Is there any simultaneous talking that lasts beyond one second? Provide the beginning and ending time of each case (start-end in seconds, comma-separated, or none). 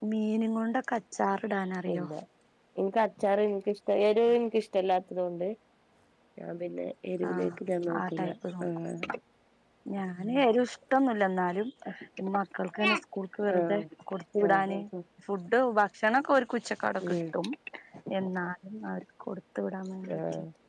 none